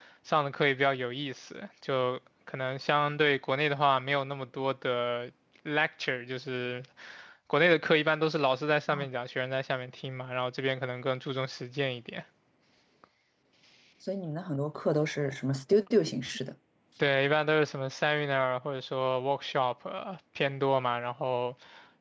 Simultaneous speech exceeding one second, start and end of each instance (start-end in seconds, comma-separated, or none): none